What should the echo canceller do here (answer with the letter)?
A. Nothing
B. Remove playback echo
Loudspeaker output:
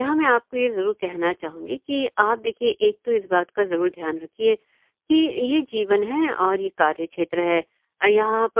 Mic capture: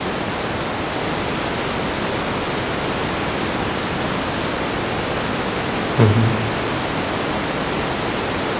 A